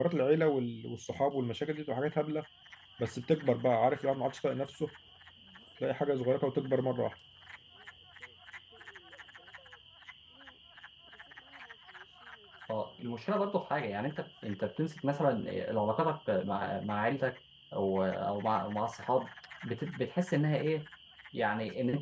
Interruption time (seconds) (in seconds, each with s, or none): none